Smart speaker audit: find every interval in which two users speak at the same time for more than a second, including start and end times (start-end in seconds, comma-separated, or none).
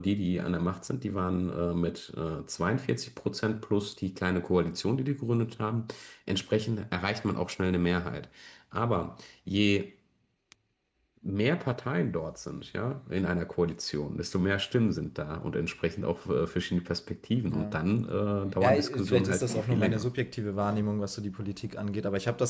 18.6-20.1